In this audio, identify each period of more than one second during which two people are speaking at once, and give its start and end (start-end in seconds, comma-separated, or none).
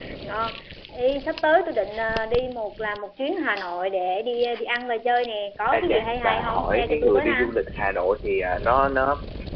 5.7-7.4